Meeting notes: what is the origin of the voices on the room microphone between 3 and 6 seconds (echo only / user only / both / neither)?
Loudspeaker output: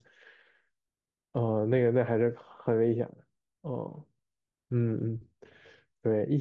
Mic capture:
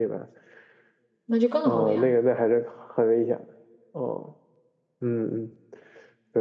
echo only